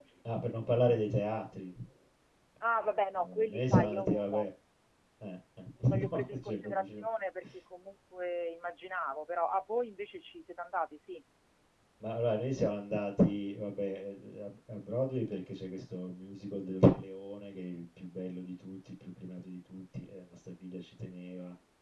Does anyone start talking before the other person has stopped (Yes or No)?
Yes